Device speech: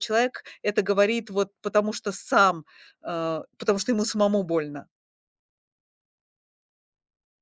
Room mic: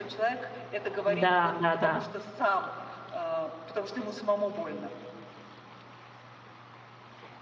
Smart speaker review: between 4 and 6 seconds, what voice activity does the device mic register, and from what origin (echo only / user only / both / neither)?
echo only